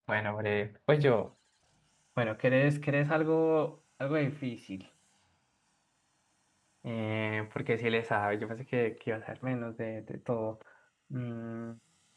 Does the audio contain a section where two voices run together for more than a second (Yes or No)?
No